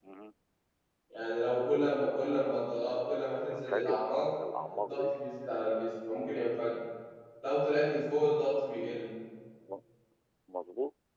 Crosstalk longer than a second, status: present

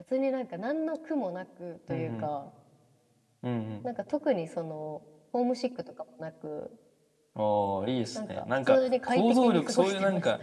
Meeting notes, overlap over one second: present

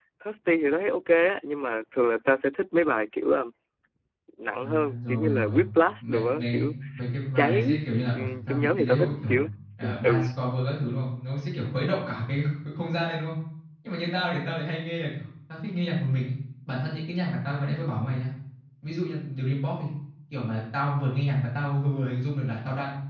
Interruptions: present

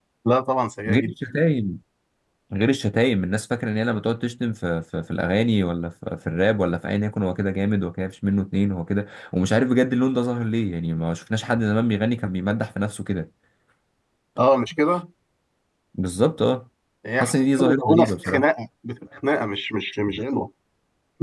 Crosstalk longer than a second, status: present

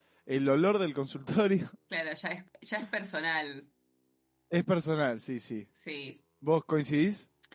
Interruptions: none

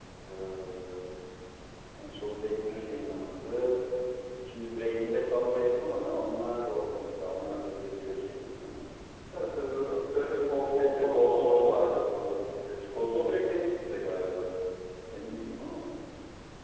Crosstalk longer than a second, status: present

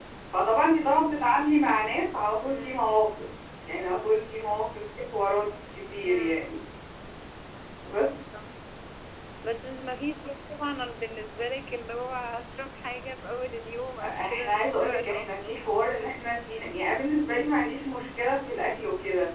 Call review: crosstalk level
present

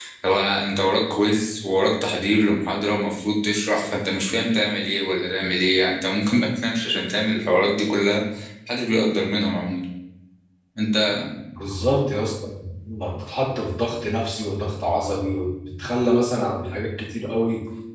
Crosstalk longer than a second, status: none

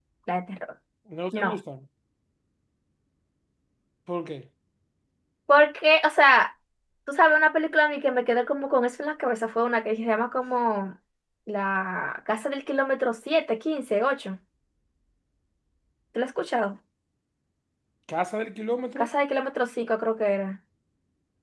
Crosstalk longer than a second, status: none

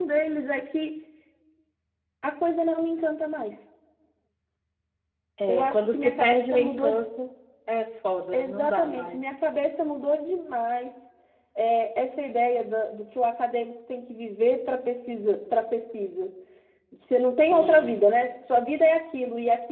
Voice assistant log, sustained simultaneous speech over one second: present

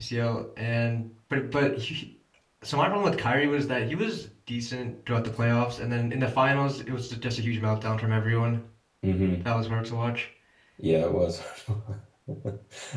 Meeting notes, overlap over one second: none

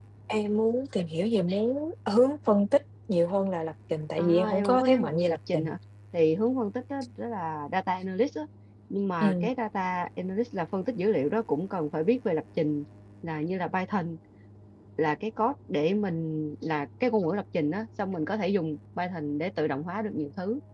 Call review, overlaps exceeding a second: present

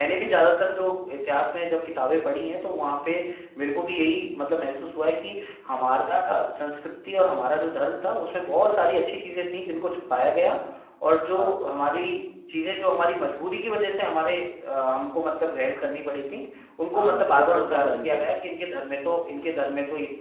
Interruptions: present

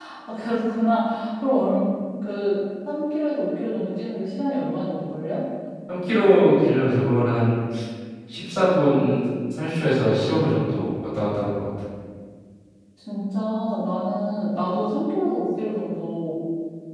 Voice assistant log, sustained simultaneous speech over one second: none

